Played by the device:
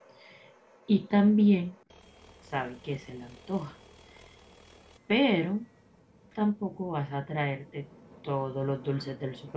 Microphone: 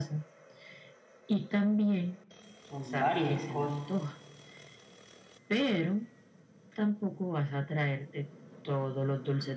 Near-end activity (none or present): present